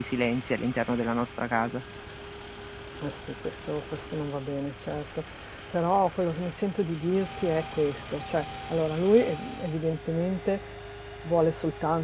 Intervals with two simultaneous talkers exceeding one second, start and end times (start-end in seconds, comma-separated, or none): none